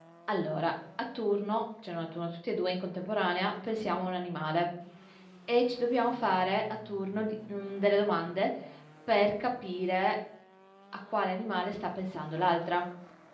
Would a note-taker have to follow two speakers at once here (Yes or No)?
No